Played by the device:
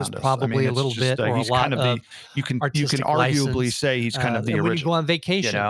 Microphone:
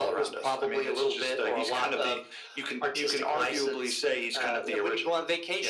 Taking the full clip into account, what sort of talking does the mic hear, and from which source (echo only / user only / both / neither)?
echo only